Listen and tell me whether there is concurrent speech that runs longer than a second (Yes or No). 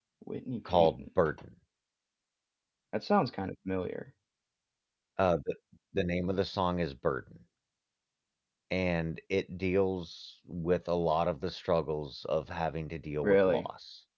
No